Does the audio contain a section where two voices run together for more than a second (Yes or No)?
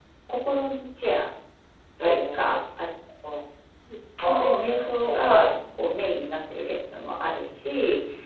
Yes